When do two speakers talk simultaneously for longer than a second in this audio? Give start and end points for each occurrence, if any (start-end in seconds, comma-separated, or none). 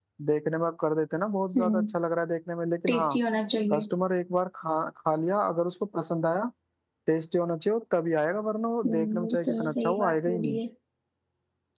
8.8-10.6